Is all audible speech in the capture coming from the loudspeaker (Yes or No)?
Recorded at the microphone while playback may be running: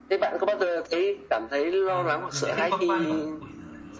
No